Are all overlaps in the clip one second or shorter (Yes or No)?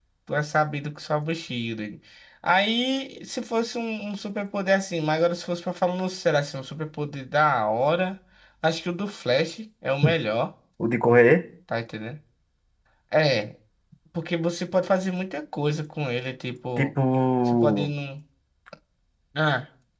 Yes